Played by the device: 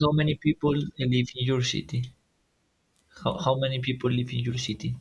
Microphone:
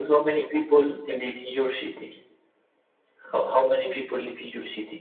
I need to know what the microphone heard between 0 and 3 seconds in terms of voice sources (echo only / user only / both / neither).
echo only